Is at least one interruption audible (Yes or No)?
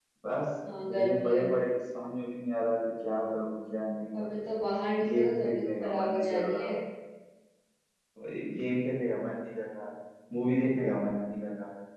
Yes